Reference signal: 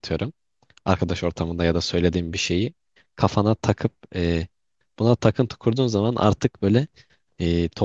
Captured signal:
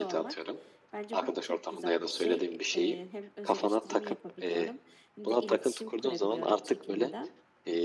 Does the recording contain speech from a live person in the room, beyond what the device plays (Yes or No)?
Yes